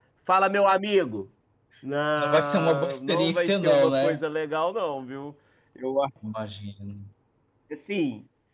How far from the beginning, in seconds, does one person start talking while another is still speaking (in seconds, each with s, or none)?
2.2 s